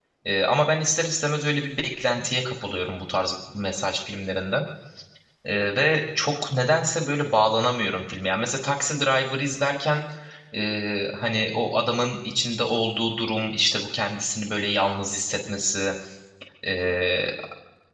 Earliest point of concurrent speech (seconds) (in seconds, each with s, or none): none